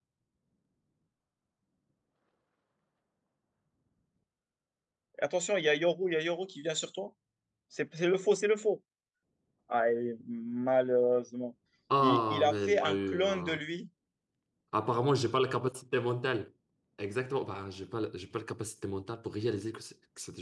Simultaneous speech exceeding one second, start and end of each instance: 12.0-13.6

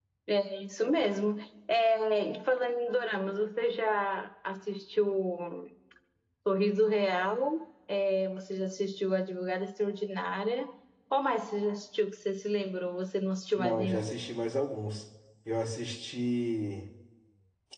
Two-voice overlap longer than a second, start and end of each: none

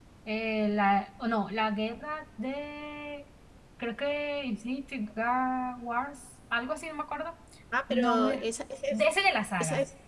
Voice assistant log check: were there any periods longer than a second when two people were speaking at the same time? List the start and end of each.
none

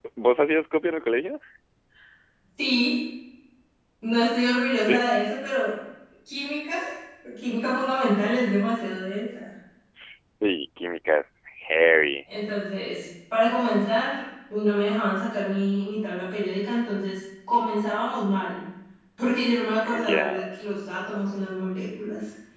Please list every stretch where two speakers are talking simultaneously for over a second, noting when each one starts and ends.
none

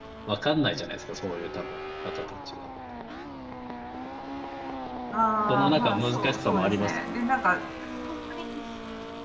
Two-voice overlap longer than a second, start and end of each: 5.5-6.9

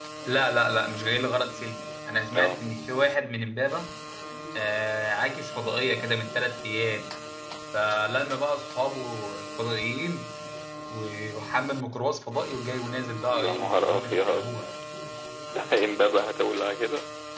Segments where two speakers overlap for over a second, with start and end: 13.3-14.5

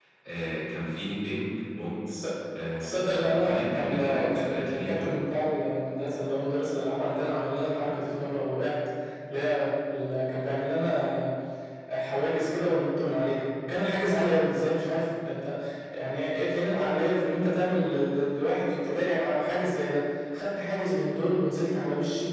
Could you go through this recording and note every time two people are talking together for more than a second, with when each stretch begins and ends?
2.8-5.2

